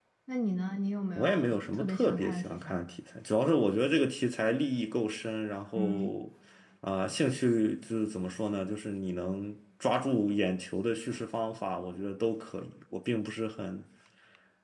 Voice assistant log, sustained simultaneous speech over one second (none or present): present